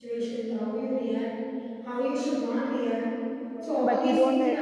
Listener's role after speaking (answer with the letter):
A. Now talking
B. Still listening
A